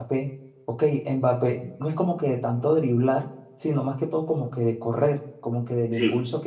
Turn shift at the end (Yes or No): No